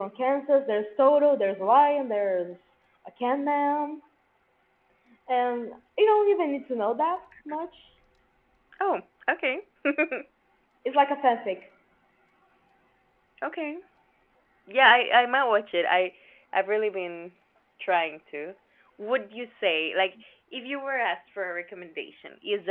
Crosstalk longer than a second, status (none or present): none